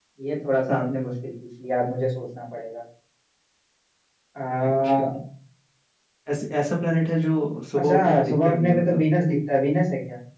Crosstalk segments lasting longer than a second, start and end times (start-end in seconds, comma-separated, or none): 7.8-9.0